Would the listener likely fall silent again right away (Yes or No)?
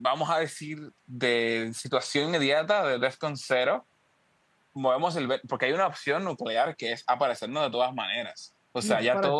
No